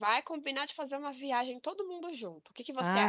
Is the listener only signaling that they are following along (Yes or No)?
No